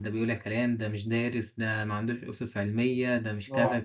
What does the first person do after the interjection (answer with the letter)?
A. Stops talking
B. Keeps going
B